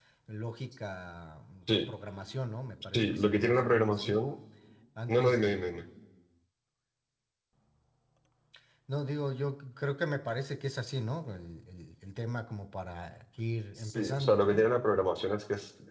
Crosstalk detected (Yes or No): Yes